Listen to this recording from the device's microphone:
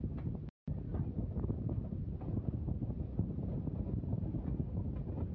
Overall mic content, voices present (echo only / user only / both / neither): neither